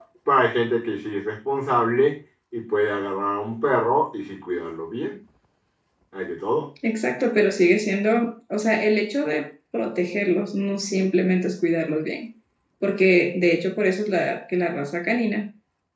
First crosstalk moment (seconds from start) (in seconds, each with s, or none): none